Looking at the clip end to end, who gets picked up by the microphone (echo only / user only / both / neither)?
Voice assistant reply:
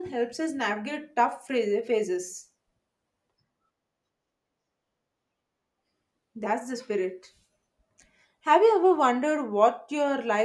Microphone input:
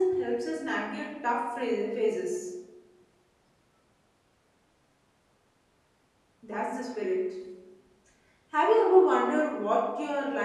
echo only